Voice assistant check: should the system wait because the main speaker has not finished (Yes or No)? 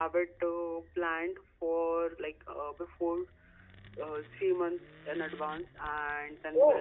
Yes